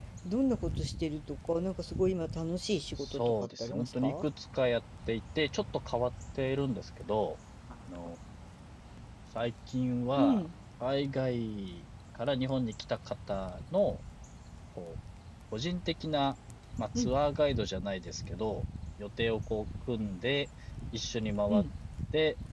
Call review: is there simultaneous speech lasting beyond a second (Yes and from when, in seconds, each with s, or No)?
Yes, from 3.0 s